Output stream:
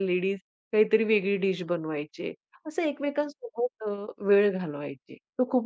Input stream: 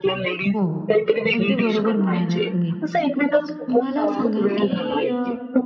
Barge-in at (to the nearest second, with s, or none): 1 s